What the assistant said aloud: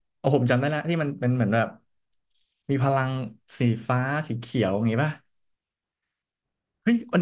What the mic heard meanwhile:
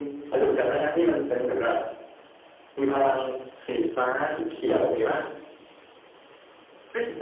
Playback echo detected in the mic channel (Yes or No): Yes